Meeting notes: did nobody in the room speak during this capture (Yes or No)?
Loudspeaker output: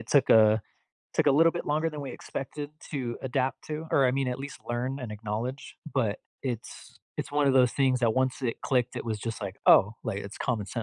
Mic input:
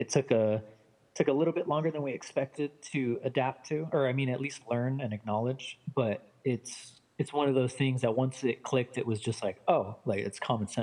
Yes